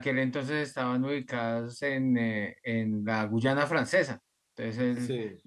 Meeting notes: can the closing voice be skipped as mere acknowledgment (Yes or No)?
Yes